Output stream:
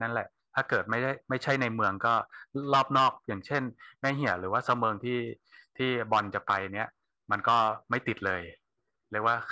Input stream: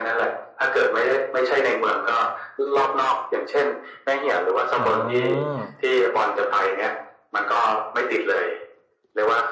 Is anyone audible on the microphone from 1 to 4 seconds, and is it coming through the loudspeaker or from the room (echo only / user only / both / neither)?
echo only